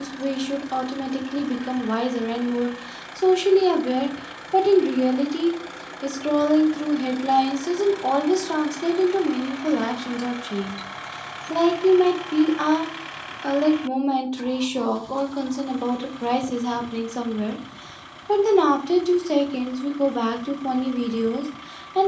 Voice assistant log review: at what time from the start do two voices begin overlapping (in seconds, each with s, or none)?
none